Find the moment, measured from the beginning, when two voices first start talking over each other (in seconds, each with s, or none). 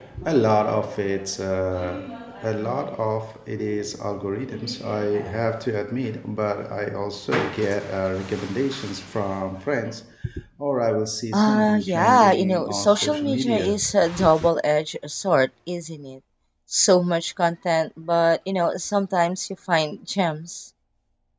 11.3 s